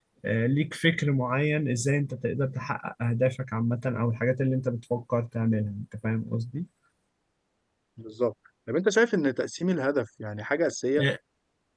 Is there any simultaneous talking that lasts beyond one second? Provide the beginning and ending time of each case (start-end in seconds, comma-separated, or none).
none